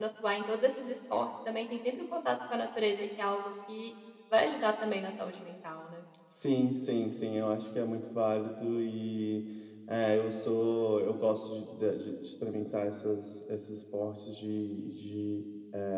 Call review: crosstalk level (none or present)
none